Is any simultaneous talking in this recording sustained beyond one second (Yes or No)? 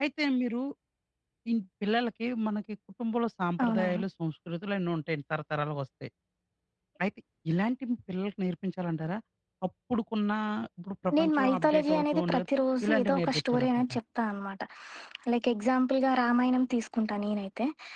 Yes